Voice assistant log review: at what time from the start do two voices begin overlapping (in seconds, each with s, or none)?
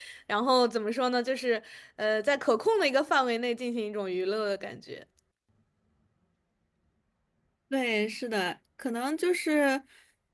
none